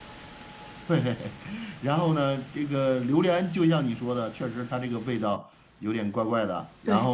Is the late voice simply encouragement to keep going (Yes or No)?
No